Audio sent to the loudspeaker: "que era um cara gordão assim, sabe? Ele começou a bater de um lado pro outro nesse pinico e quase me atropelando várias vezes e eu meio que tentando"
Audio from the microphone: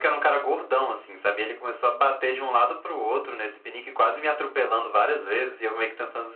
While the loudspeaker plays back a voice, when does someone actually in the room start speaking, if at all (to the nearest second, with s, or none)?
none